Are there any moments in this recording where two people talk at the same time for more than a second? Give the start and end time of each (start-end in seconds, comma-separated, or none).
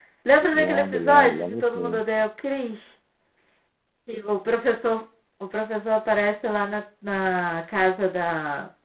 0.5-2.0